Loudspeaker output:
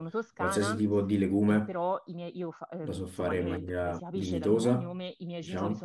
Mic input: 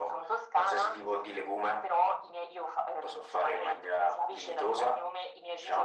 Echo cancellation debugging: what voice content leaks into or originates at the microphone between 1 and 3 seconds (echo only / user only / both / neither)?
echo only